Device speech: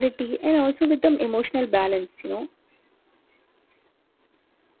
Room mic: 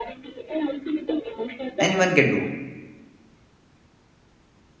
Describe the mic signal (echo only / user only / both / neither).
both